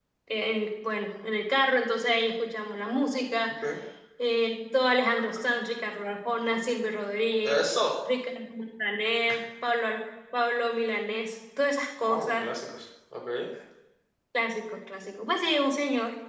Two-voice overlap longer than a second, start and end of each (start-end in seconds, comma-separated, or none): none